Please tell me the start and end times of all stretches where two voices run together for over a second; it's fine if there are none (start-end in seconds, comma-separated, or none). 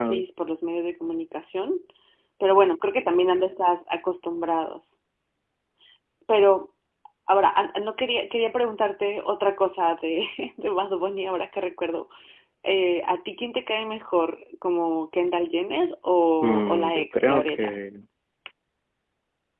16.4-17.7